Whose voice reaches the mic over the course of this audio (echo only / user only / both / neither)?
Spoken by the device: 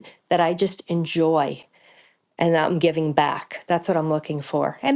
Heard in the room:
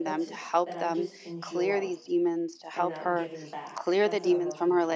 both